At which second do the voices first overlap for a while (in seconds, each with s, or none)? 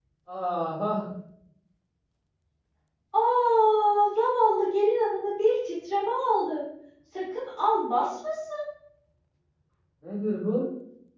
none